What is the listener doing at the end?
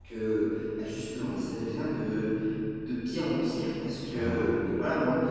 listening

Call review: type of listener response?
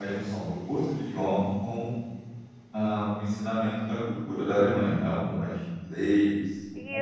taking over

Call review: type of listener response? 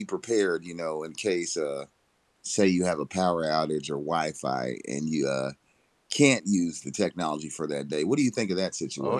taking over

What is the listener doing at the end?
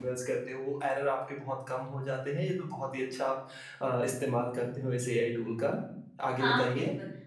taking over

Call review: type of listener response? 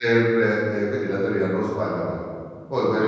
listening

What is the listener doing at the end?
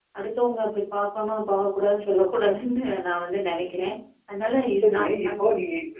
taking over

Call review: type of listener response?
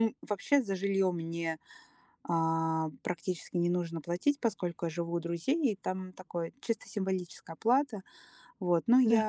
listening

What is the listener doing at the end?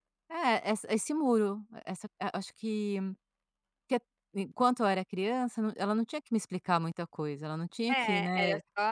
taking over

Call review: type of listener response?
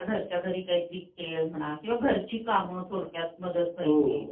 taking over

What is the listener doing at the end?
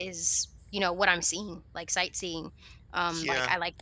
listening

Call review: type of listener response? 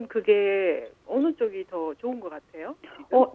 taking over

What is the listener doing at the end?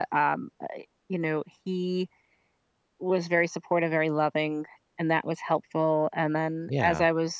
listening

